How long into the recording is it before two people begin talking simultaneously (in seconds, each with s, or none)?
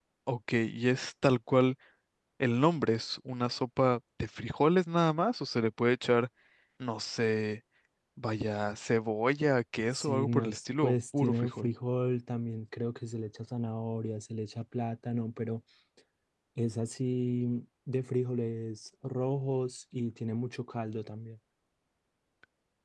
9.9 s